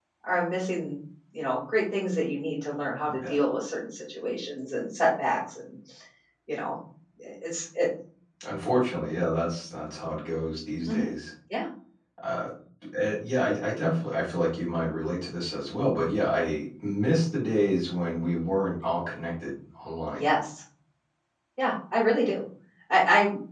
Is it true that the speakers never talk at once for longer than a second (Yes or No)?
Yes